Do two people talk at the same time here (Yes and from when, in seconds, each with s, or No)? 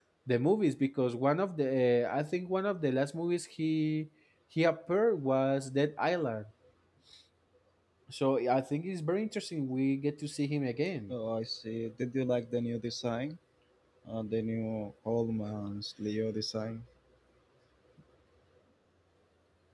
No